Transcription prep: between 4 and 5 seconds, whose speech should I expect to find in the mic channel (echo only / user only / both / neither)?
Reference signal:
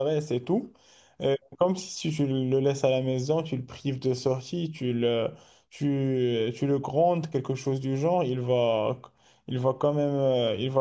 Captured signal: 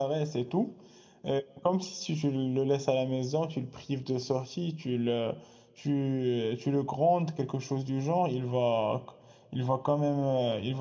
echo only